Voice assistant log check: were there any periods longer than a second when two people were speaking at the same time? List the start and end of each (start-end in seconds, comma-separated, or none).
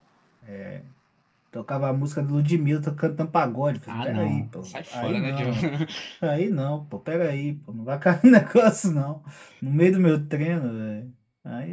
3.9-5.5